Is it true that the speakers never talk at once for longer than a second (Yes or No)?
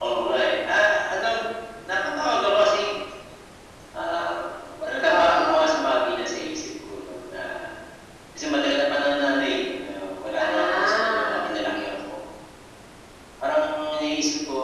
No